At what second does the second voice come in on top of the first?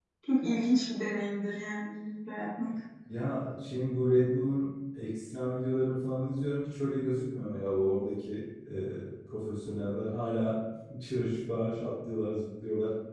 none

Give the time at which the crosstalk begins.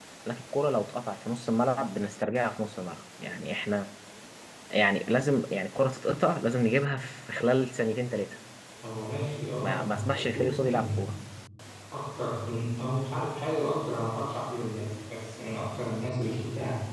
9.6 s

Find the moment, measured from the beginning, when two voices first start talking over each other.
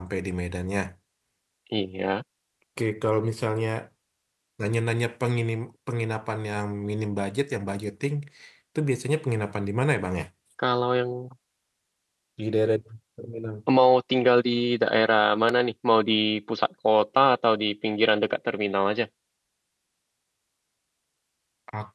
none

